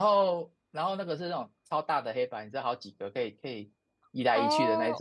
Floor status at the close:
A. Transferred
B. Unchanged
A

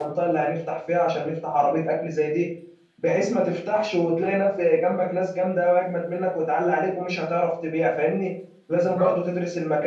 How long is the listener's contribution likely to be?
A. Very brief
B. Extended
A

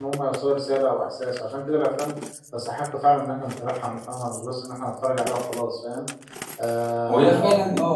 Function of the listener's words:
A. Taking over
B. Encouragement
A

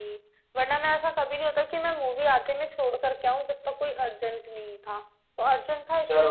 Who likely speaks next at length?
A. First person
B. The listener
B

